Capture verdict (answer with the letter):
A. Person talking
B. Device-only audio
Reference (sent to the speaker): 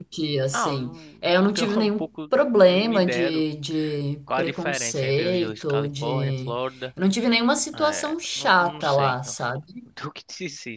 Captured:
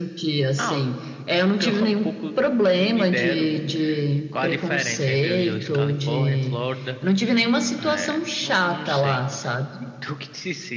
B